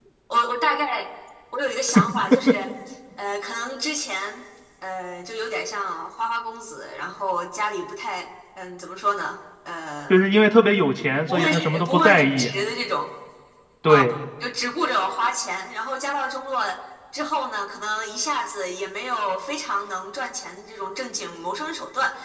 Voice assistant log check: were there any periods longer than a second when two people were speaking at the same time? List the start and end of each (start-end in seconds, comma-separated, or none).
11.3-12.5